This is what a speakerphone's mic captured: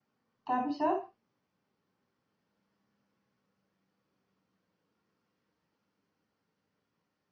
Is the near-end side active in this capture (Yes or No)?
Yes